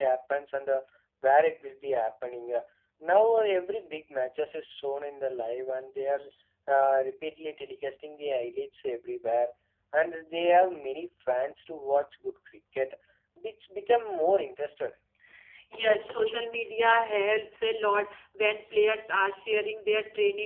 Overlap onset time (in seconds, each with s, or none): none